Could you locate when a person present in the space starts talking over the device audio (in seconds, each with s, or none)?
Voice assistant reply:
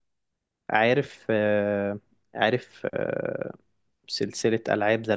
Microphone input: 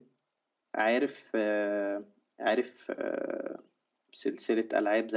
none